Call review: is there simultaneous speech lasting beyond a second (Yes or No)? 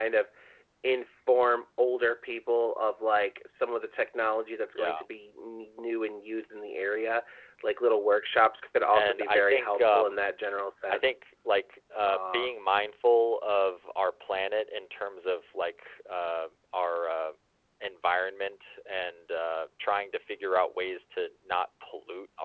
Yes